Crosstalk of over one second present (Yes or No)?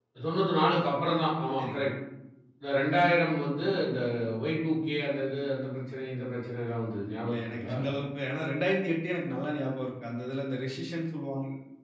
No